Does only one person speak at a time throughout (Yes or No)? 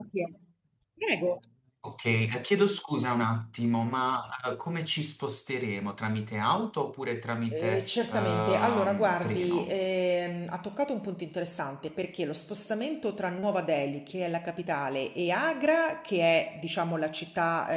No